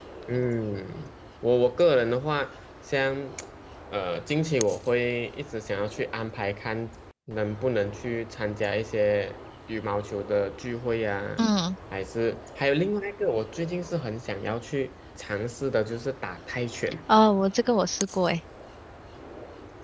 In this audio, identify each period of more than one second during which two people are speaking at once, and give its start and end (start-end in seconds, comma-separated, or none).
none